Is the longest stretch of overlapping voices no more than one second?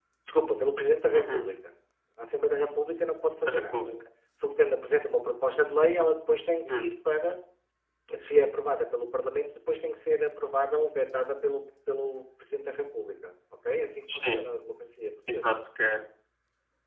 Yes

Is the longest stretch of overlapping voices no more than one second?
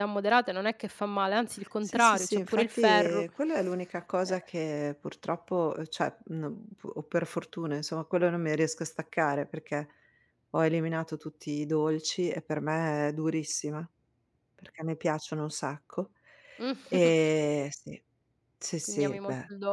No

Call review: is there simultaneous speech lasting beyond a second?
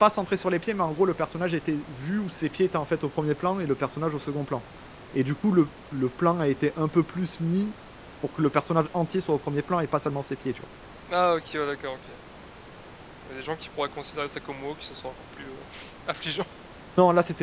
No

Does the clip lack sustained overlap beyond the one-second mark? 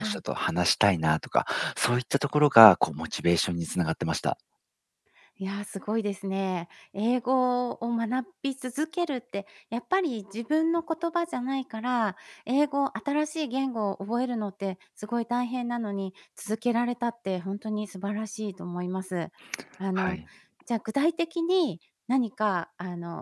Yes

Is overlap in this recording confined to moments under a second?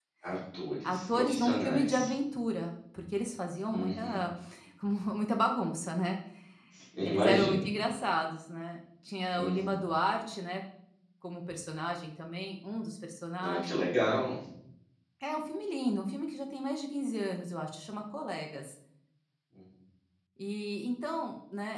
No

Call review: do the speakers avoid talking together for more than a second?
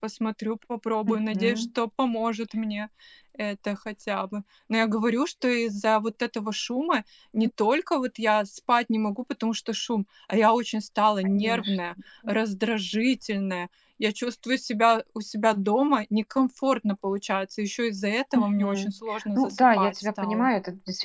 No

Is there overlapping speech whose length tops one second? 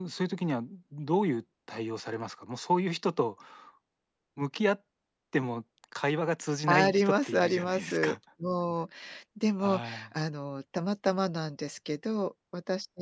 Yes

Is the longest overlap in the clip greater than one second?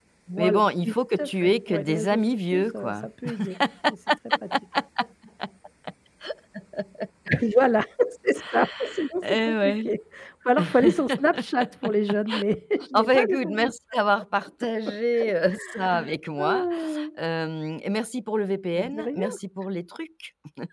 Yes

